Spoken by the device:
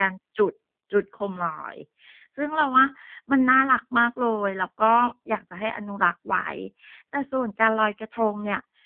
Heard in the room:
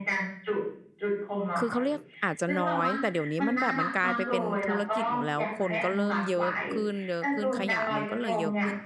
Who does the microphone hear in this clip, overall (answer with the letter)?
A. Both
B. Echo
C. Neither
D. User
A